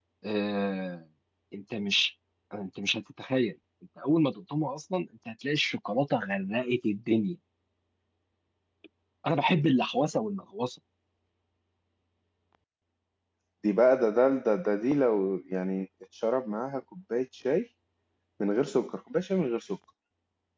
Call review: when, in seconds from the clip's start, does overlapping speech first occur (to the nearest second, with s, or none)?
none